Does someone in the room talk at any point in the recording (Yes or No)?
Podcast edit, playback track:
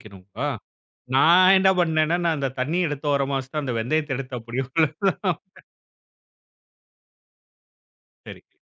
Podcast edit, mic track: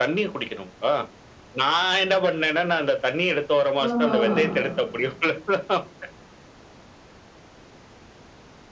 Yes